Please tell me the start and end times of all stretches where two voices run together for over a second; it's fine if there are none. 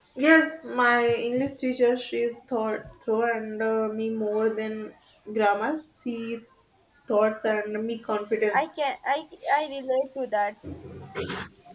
none

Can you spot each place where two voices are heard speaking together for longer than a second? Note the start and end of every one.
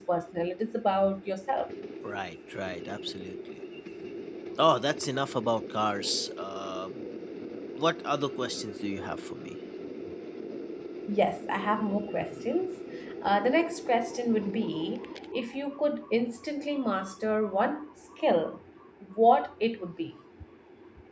none

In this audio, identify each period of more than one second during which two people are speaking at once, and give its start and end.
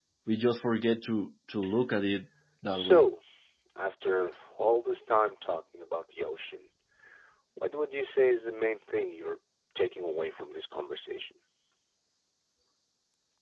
none

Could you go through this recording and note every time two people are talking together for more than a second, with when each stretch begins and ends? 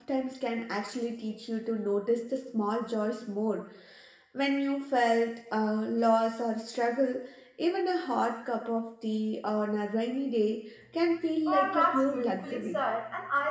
11.5-12.8

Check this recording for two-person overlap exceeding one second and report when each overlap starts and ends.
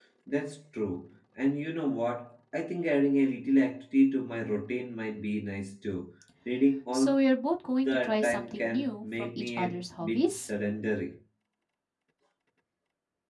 7.8-10.5

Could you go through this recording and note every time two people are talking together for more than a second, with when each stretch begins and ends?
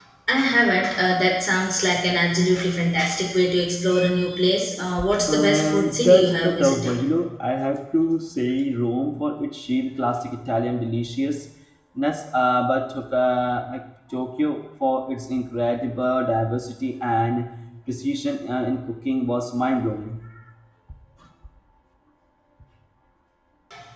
5.3-6.9

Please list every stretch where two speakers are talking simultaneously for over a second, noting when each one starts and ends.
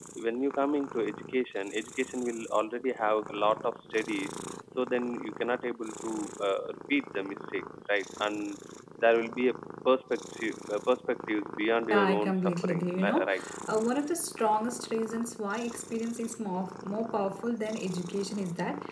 11.9-13.3

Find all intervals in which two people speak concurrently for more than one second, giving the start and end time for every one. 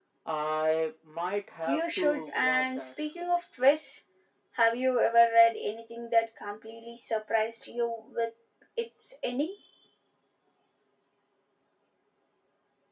1.7-2.9

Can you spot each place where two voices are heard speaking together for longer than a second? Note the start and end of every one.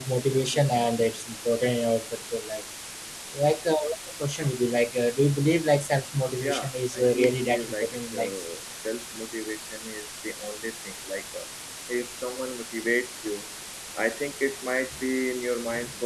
6.4-8.3

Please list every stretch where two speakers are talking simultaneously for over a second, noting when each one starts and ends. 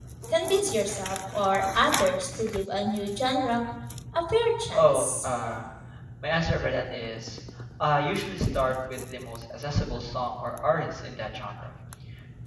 none

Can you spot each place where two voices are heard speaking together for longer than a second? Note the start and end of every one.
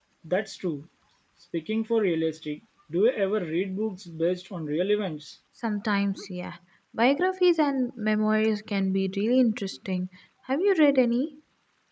none

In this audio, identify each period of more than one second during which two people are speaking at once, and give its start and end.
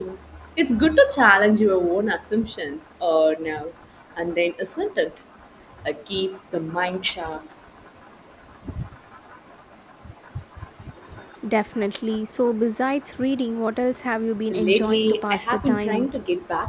14.5-16.1

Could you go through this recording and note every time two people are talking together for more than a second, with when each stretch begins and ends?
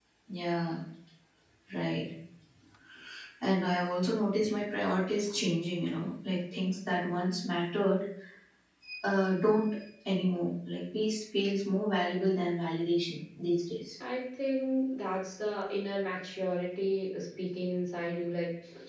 none

